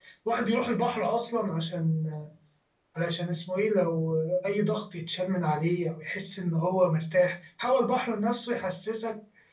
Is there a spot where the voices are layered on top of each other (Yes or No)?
No